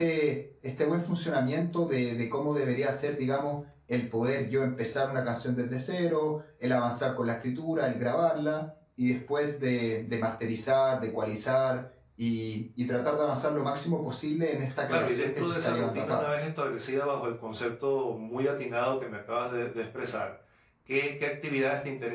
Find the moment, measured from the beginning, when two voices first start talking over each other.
15 s

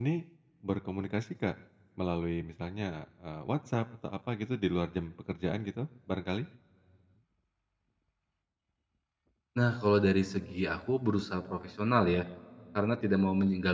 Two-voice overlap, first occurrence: none

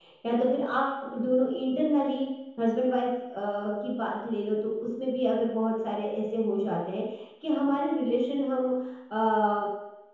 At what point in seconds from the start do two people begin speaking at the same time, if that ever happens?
none

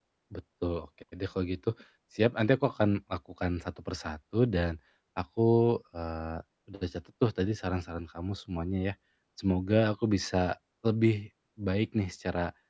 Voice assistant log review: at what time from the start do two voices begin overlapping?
none

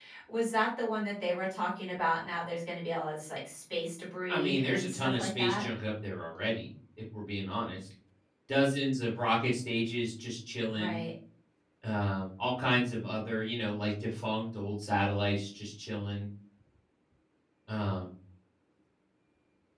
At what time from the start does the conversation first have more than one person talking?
4 s

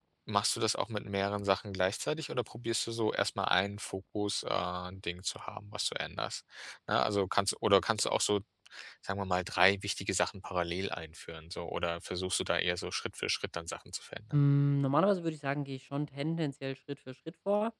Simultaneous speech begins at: none

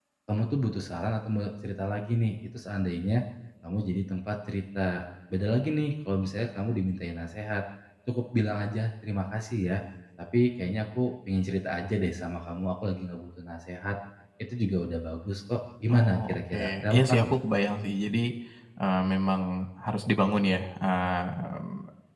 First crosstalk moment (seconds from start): 16 s

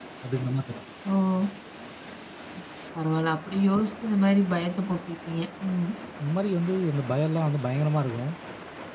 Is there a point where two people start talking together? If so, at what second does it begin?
none

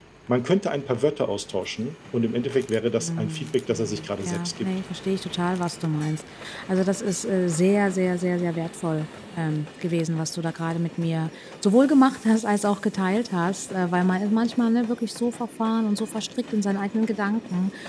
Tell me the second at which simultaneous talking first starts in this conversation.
3 s

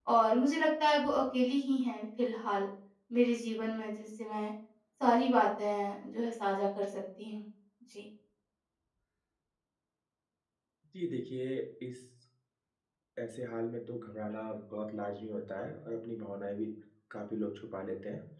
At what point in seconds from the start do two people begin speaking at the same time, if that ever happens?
none

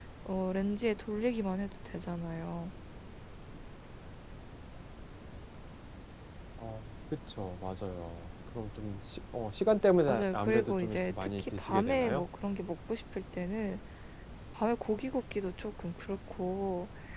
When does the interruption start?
10 s

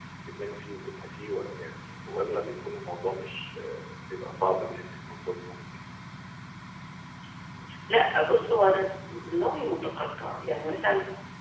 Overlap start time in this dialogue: none

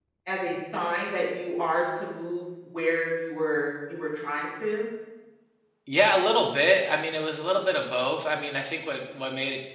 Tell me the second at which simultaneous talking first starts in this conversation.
none

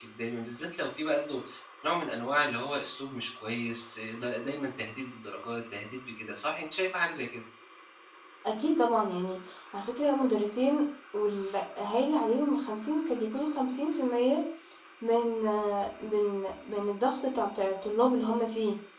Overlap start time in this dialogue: none

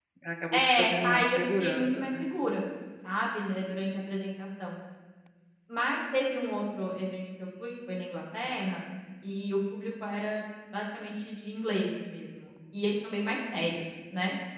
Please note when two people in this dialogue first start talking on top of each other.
1 s

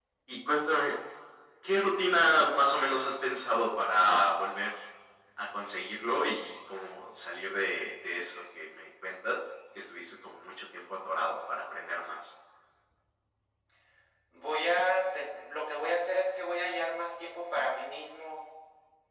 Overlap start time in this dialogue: none

